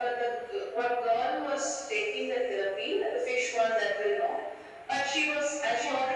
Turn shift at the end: No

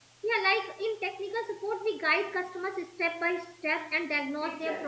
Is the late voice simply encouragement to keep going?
Yes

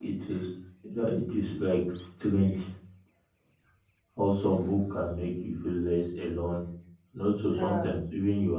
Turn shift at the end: No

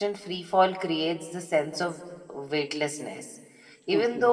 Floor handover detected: No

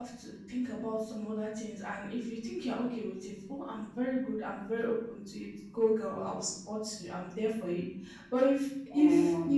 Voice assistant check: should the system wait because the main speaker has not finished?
Yes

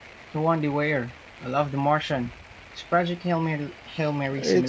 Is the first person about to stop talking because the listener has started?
Yes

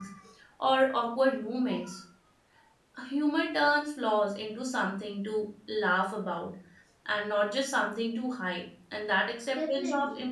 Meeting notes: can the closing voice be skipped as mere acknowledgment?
Yes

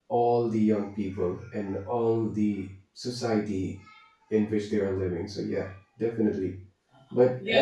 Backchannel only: No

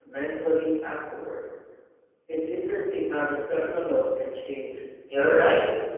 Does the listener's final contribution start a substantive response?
Yes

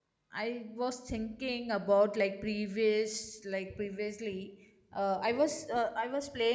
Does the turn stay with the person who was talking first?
Yes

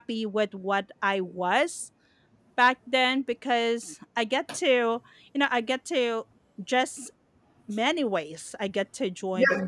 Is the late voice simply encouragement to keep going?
No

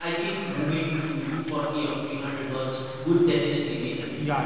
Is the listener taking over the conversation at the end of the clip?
Yes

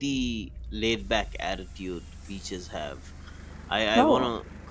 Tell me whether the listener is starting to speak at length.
No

